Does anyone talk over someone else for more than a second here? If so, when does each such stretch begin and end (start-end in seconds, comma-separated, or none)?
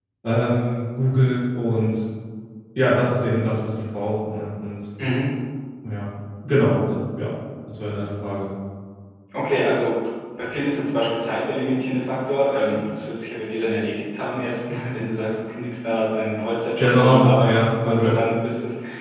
16.8-18.2